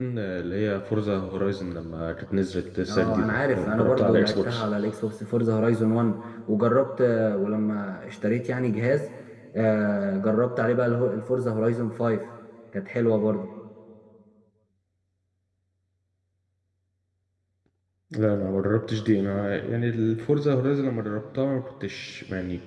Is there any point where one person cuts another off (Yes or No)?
Yes